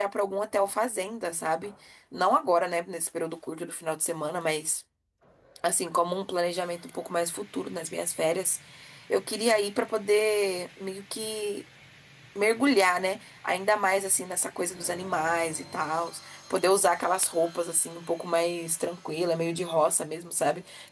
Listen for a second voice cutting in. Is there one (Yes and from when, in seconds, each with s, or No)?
No